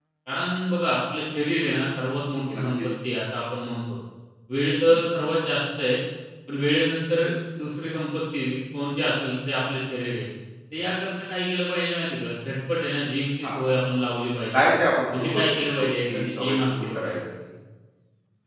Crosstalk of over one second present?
Yes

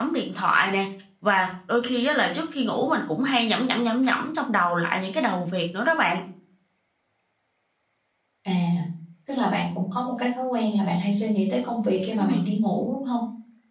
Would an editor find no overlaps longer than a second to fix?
Yes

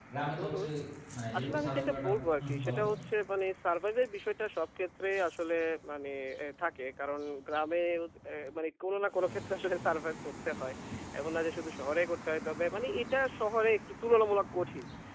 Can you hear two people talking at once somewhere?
Yes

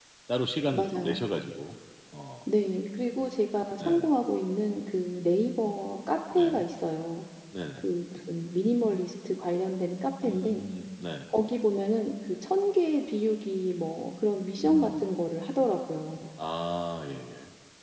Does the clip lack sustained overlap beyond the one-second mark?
Yes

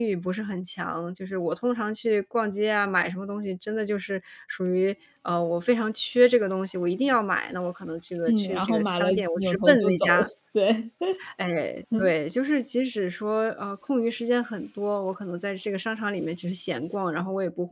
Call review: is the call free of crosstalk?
No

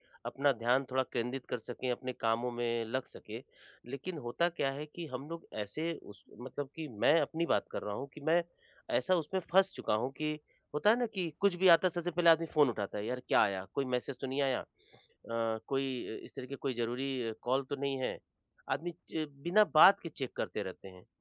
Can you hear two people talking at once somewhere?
No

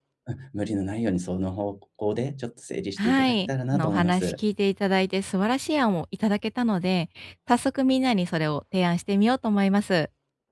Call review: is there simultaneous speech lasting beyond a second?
Yes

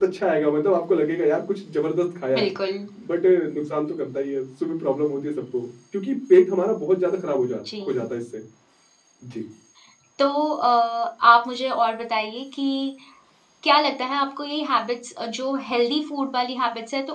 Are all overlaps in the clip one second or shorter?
Yes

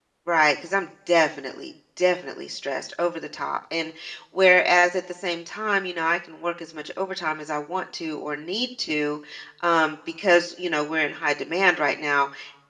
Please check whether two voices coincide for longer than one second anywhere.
No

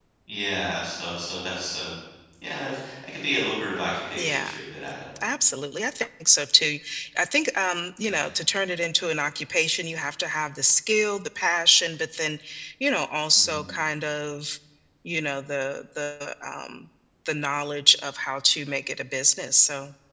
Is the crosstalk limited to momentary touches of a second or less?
Yes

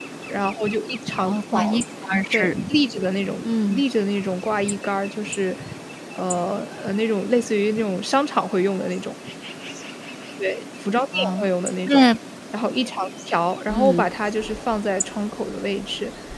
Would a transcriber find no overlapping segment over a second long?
Yes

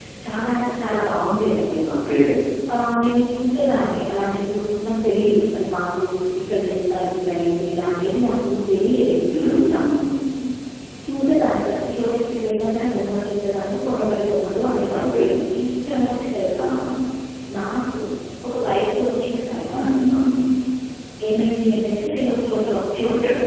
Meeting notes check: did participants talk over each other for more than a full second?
No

